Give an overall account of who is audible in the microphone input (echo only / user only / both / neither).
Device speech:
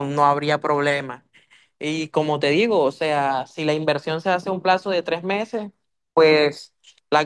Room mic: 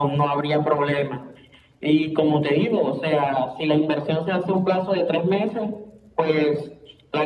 echo only